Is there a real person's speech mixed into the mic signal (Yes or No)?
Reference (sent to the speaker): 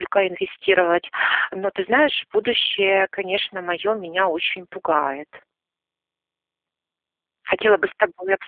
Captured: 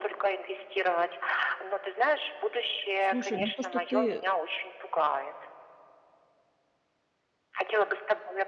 Yes